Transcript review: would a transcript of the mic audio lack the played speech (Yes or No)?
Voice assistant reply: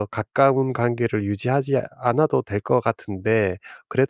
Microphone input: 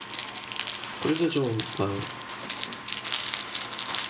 Yes